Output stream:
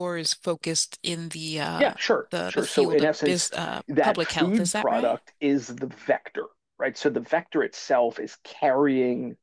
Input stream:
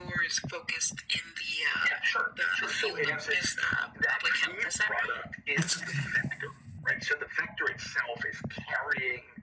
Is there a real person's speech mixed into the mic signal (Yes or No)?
Yes